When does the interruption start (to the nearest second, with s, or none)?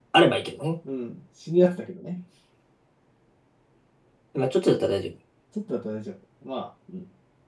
none